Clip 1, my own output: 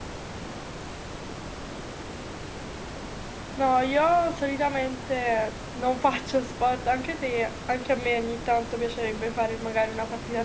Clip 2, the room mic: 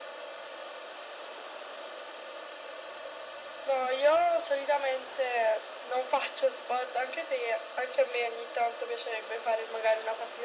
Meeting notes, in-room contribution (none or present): none